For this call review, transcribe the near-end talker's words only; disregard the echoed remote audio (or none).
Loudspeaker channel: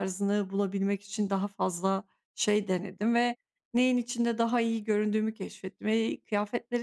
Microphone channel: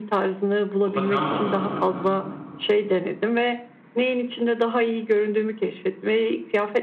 O da sen mi oluyorsun genelde?